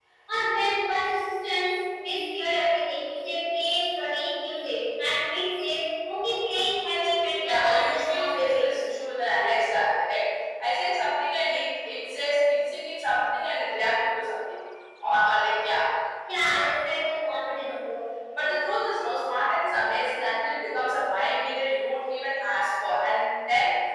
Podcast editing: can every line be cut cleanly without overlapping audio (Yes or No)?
No